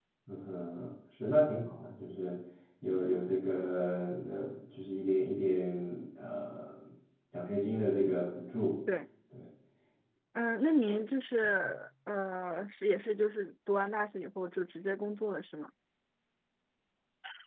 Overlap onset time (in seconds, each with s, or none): none